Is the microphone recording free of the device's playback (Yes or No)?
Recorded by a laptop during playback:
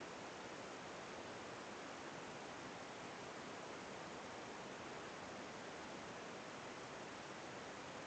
Yes